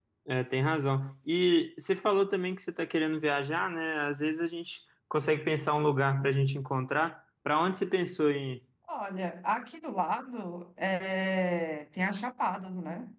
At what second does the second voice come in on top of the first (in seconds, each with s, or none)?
none